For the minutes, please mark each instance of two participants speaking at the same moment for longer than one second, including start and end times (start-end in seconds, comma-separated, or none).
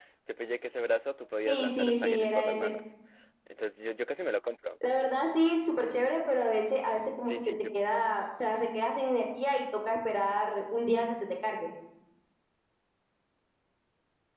1.4-2.7